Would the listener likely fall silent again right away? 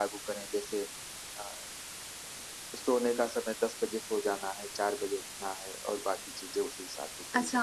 No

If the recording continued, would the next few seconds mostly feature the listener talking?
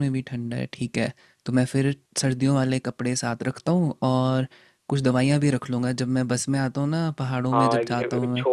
Yes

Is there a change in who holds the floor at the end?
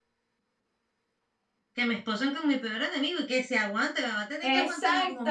Yes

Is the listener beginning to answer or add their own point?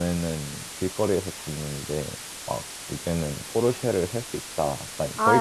Yes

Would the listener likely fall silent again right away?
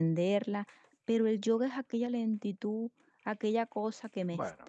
No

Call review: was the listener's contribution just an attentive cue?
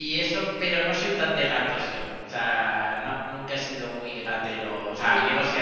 Yes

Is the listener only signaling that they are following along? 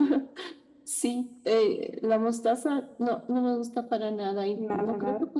Yes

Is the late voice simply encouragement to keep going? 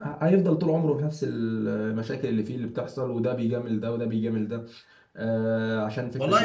No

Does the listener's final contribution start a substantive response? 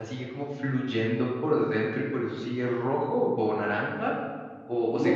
Yes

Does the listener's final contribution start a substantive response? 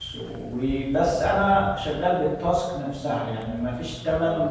No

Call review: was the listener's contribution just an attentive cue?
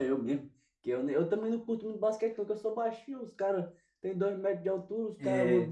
Yes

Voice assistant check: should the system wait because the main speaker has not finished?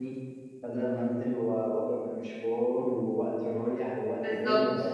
Yes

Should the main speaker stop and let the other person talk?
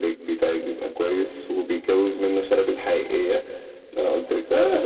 Yes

